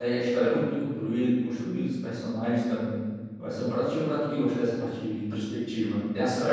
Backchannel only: No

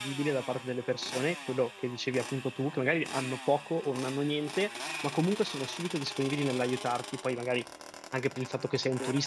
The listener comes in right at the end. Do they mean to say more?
No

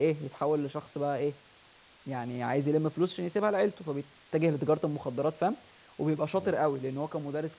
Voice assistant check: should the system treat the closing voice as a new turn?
No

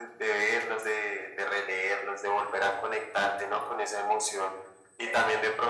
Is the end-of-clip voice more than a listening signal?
No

